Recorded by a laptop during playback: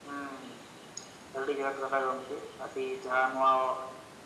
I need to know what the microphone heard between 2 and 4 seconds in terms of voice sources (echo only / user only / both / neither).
echo only